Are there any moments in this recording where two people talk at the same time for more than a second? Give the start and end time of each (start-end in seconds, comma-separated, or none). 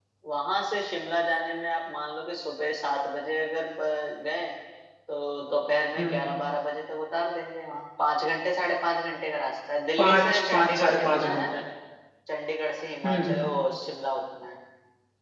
10.0-11.4